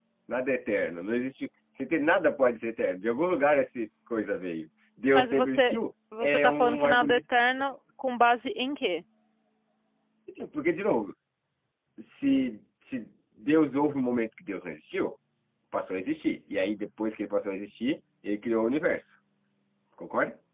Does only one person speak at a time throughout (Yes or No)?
No